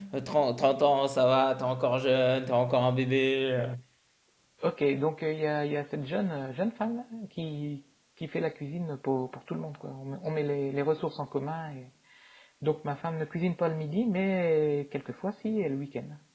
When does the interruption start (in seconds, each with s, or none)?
none